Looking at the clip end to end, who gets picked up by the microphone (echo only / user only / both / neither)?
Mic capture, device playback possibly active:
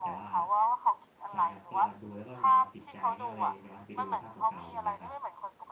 both